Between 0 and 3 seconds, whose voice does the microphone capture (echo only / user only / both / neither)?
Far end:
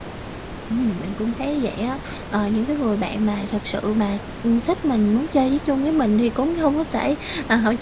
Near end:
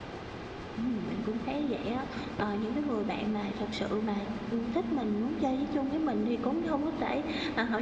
echo only